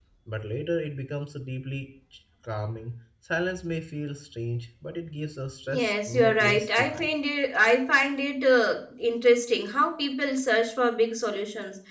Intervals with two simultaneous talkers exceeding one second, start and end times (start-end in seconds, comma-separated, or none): 5.7-7.1